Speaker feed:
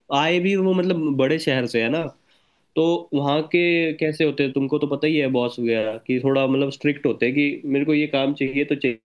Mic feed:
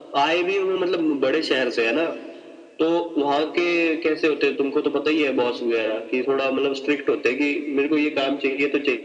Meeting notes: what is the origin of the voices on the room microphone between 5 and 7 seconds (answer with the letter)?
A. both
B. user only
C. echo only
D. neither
C